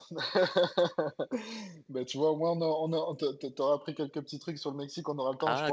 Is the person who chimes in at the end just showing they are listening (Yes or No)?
Yes